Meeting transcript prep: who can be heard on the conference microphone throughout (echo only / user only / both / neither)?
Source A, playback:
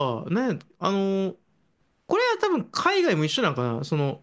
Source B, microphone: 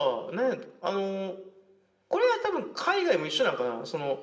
echo only